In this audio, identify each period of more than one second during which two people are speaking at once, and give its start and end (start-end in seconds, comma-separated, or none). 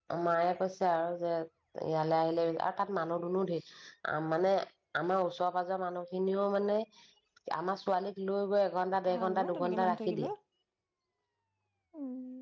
9.1-10.3